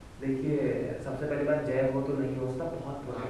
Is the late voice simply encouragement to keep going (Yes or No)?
Yes